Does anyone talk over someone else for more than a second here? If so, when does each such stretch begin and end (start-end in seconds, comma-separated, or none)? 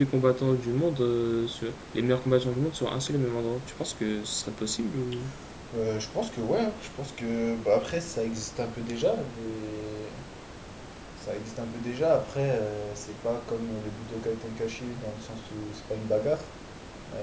none